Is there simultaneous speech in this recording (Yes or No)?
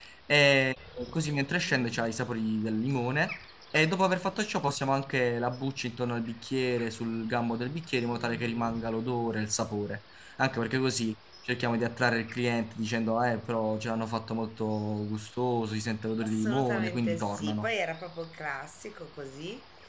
Yes